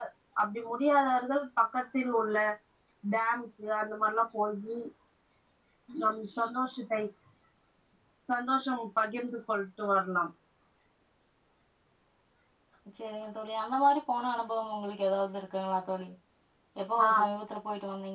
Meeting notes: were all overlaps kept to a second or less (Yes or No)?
Yes